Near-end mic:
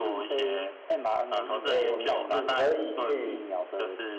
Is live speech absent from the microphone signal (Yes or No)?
No